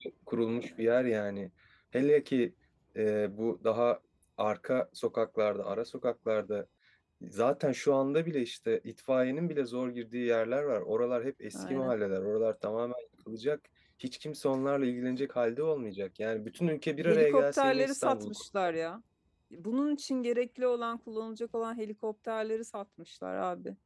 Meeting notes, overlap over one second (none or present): present